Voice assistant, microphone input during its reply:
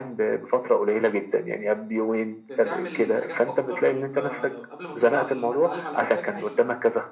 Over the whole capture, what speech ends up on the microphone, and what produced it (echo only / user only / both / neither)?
both